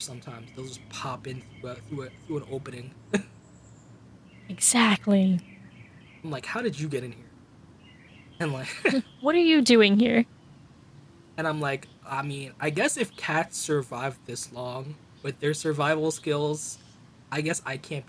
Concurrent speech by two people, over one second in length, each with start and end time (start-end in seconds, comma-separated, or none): none